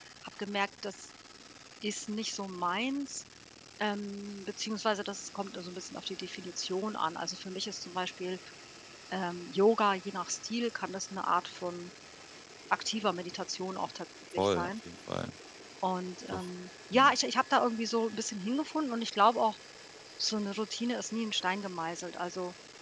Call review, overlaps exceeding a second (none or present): none